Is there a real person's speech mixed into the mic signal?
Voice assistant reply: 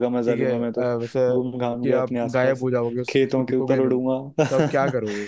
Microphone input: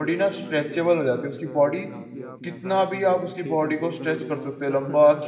Yes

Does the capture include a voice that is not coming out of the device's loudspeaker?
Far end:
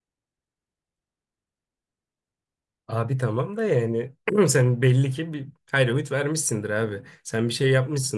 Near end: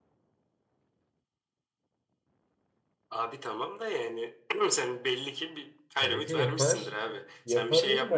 Yes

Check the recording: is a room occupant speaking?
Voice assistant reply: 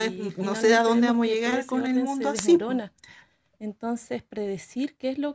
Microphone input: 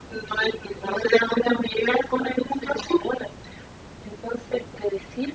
No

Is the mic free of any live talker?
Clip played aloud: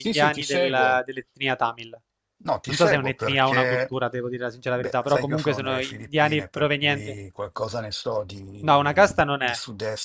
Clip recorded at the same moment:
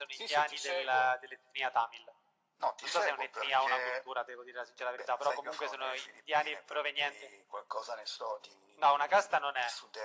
Yes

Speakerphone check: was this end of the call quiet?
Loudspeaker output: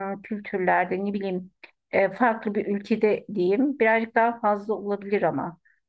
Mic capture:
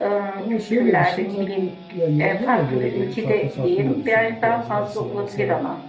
No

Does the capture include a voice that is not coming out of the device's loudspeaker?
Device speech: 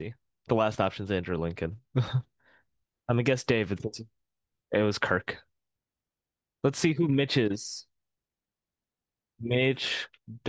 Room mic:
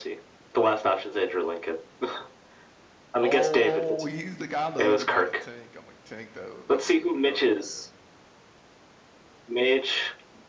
Yes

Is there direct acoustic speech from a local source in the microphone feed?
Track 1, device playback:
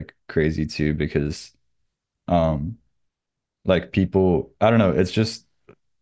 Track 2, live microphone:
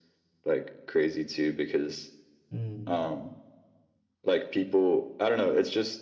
Yes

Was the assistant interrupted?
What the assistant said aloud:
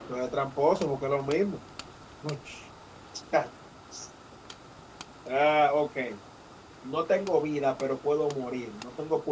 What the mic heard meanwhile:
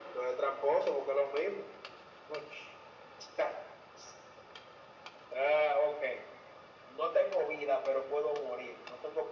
No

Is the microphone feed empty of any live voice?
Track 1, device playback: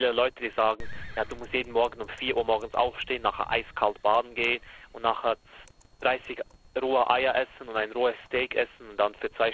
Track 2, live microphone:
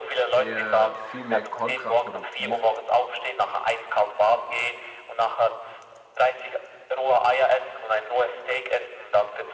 No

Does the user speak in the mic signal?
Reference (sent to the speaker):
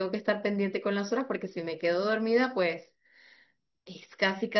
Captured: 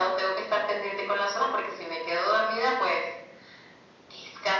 No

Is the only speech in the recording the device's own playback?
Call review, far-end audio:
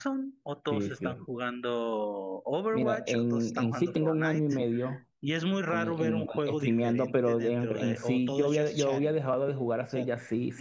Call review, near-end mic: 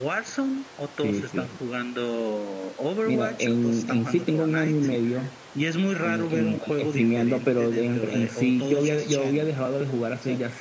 Yes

